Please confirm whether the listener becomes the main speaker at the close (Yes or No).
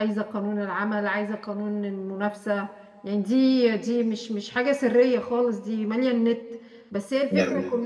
No